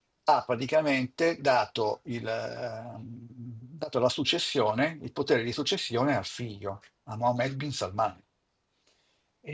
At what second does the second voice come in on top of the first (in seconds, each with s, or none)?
none